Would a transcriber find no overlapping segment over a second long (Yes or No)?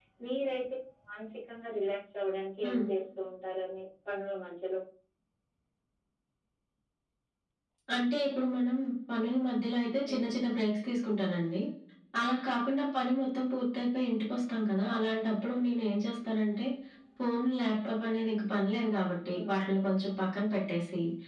Yes